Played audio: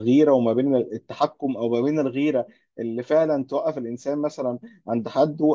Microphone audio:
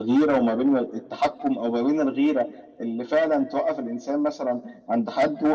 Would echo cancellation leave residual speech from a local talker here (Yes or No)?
No